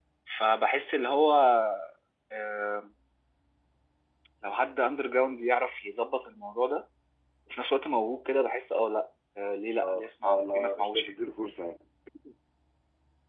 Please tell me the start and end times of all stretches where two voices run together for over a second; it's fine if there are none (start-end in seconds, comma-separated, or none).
9.8-11.1